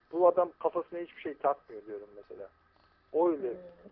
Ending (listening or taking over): taking over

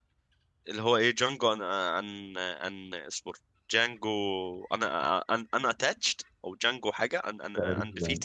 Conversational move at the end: taking over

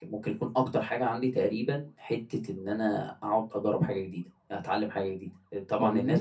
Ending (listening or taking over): listening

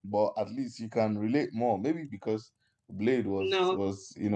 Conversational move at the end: listening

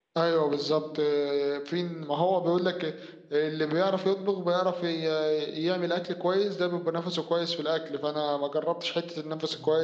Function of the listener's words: listening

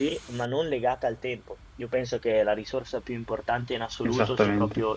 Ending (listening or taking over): listening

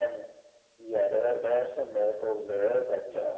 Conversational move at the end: listening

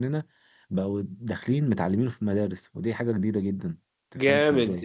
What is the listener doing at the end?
taking over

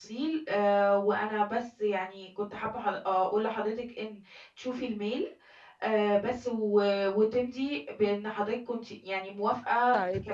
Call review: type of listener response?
taking over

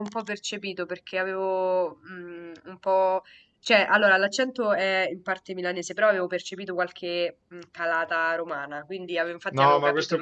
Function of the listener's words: taking over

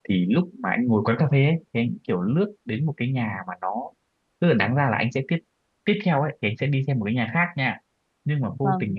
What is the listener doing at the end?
listening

